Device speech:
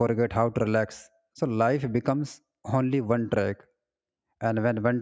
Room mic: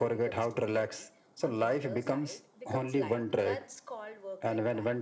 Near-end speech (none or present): present